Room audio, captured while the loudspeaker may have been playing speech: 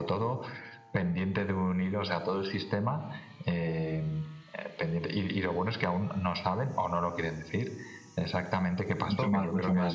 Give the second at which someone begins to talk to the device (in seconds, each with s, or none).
9.0 s